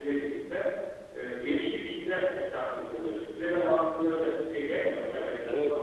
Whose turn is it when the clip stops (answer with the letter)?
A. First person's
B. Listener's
B